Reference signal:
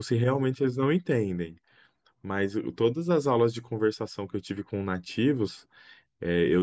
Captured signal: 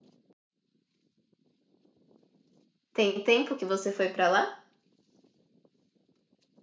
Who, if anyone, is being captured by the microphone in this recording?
user only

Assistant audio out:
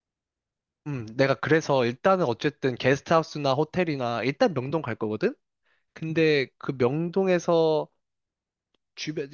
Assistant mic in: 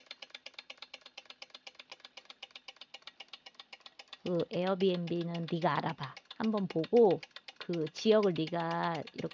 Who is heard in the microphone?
user only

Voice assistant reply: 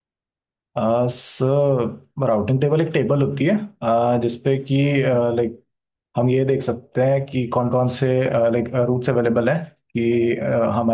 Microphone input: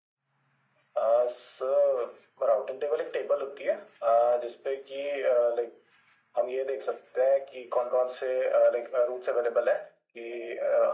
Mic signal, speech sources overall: echo only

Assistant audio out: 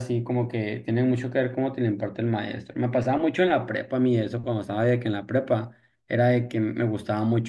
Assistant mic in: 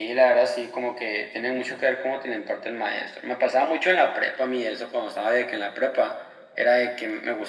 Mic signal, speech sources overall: echo only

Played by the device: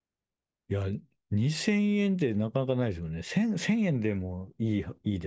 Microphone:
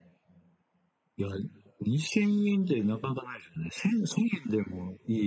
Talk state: echo only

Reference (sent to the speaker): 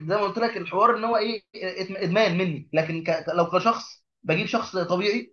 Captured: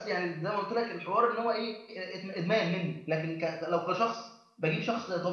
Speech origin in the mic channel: echo only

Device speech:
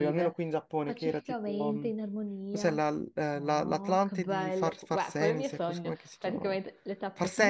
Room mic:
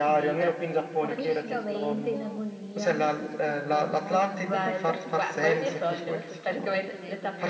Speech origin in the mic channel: both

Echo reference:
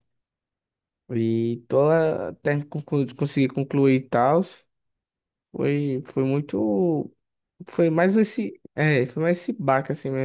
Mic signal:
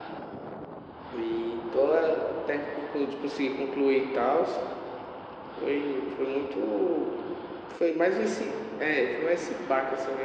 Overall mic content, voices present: echo only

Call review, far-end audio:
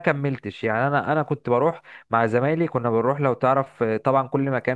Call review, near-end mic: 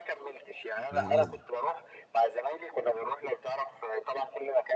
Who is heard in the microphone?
both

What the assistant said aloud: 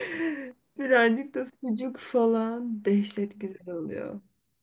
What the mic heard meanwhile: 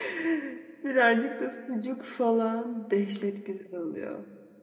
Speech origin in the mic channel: echo only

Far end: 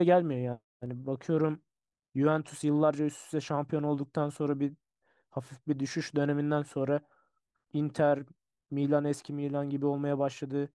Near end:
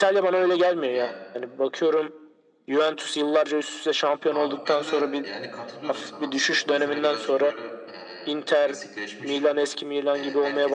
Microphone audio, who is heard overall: both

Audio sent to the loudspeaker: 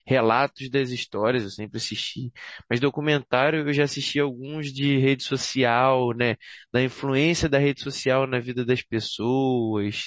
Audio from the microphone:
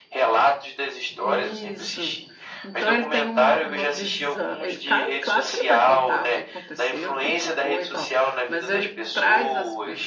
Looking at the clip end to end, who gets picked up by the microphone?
both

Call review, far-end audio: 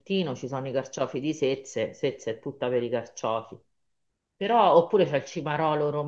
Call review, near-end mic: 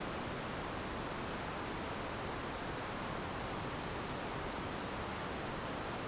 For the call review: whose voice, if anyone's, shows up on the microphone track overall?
neither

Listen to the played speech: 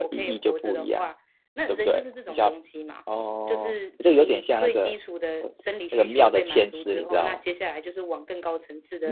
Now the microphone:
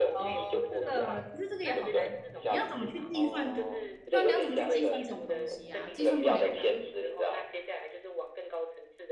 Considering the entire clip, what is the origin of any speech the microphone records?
both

